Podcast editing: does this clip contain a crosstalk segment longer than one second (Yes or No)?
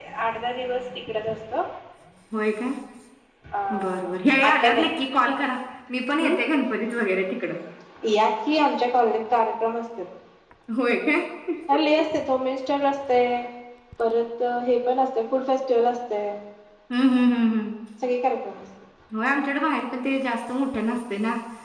No